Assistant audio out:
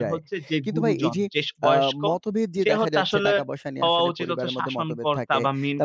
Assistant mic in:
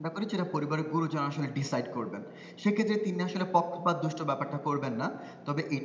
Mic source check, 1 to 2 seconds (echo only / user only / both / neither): user only